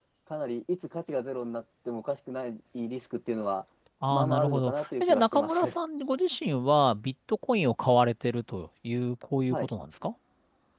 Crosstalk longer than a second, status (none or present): present